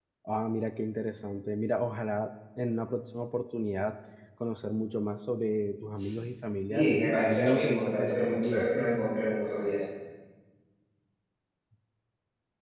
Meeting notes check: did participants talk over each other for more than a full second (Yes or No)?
Yes